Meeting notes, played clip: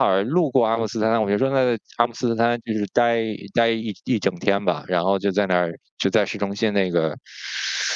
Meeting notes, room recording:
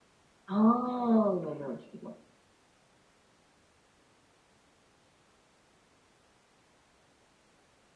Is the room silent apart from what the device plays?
No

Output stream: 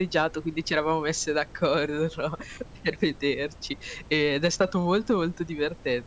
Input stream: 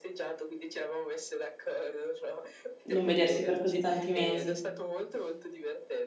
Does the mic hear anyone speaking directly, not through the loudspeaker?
Yes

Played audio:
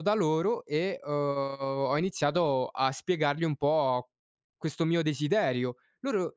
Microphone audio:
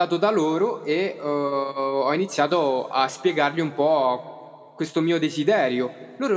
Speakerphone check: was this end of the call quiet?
Yes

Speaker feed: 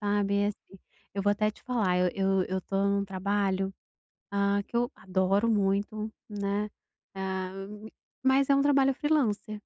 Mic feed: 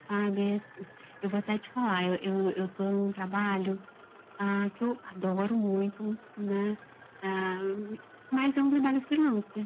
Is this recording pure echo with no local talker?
Yes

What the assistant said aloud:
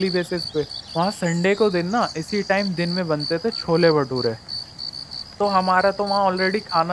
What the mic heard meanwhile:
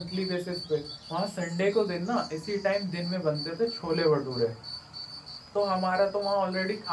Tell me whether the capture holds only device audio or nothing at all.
Yes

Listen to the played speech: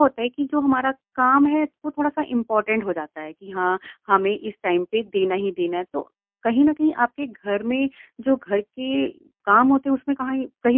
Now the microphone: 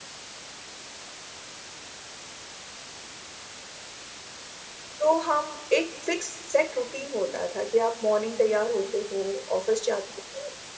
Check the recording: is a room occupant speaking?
Yes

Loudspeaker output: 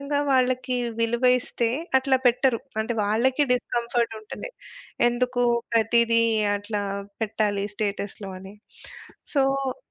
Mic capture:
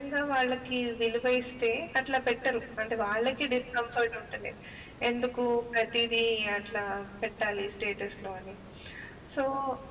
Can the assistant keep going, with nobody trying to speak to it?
Yes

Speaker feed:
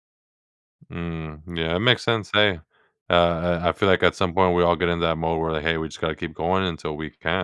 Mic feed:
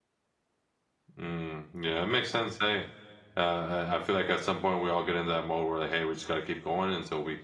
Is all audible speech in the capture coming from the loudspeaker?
Yes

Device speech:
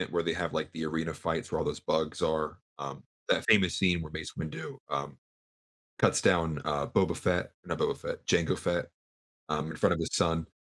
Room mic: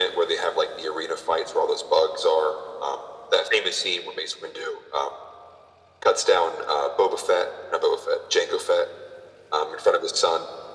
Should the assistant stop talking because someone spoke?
No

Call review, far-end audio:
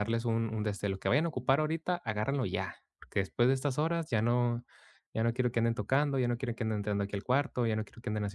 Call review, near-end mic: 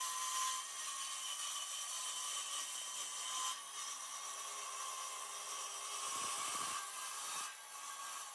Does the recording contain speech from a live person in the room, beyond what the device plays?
No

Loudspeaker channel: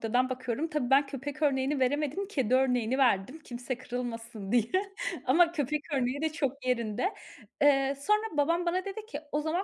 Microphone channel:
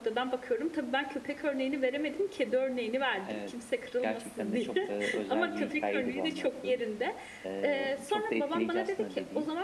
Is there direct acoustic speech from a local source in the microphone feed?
Yes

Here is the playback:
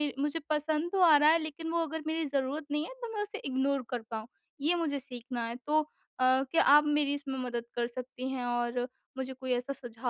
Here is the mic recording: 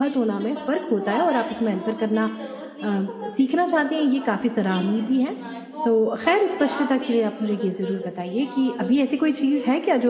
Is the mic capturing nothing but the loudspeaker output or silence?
No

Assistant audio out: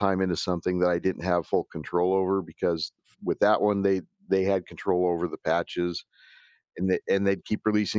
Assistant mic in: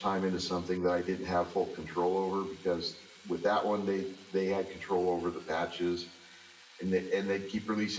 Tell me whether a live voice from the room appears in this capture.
No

